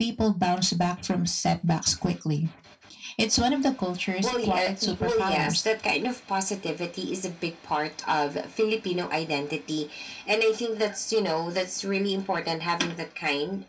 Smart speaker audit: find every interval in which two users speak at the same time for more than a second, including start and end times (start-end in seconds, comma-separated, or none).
4.2-5.6